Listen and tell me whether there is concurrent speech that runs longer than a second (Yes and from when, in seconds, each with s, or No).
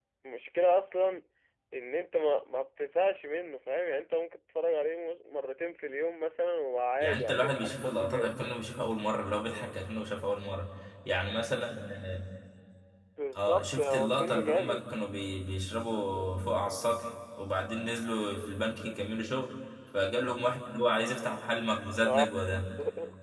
Yes, from 7.0 s